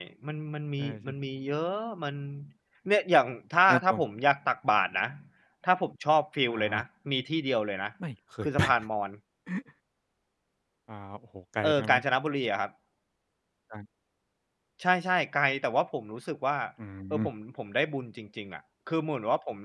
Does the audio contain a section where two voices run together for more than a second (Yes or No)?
No